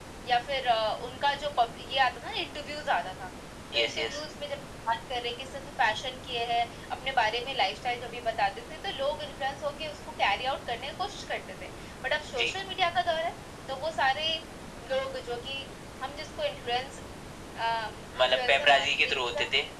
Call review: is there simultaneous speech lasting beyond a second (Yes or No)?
Yes